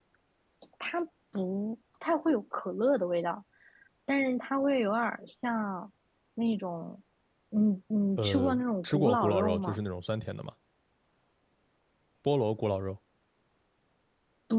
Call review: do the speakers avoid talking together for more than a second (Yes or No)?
No